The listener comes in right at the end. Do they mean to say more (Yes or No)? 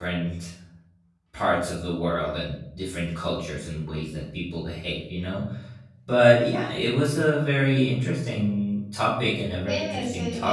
Yes